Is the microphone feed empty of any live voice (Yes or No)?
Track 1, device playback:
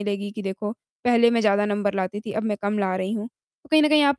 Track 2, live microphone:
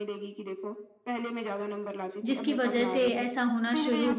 No